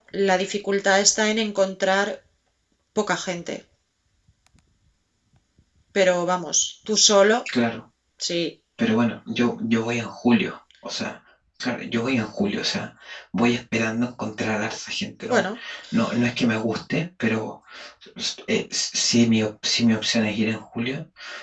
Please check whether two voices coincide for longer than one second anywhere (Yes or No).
No